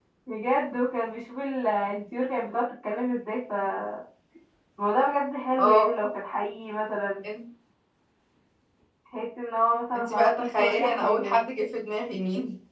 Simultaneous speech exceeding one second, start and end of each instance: 10.0-11.4

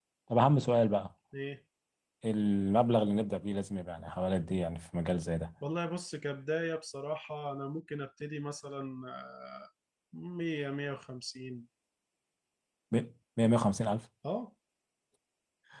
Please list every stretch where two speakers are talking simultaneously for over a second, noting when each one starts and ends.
none

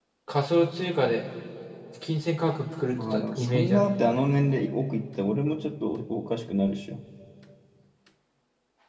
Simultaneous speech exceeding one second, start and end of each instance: 2.9-4.2

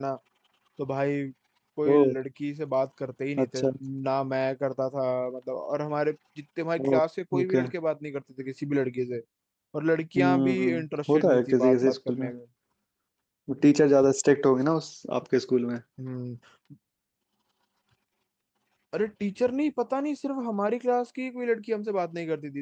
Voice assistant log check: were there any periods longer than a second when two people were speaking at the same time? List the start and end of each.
10.2-12.3

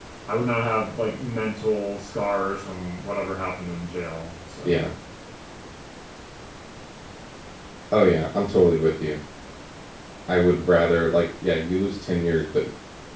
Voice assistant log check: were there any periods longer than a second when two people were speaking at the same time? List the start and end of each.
none

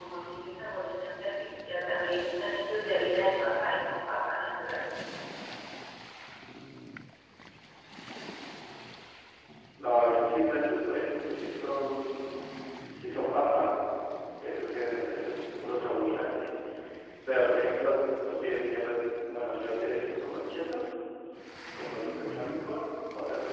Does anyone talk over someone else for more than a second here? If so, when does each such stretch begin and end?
none

